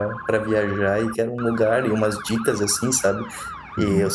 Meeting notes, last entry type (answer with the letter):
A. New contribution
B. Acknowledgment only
B